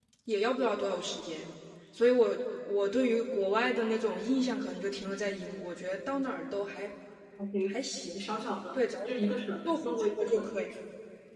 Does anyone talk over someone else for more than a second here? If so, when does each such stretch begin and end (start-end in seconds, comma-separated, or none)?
8.7-10.5